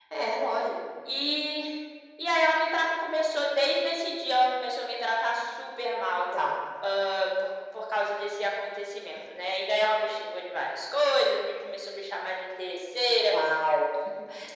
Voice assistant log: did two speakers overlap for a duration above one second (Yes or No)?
No